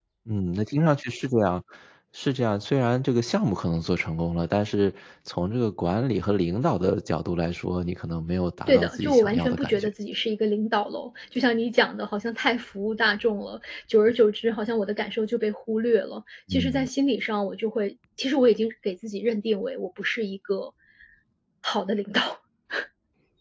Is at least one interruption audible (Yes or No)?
Yes